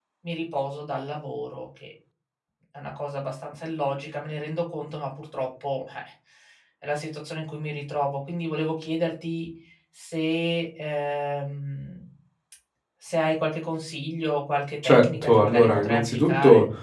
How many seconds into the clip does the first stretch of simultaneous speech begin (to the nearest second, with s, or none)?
15 s